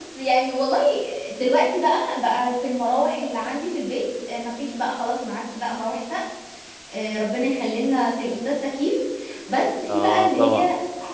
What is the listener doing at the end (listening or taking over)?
listening